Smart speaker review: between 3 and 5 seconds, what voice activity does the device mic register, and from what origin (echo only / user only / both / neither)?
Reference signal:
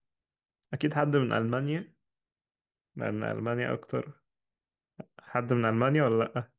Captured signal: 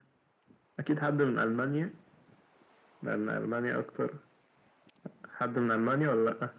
echo only